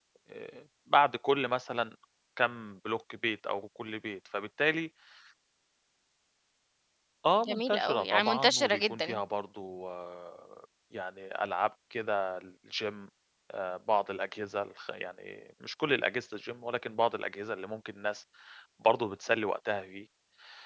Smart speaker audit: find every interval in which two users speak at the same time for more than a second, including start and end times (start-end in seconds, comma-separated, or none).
7.4-9.2